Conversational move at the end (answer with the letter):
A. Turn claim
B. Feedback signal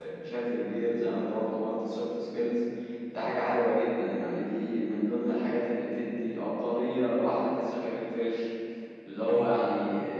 B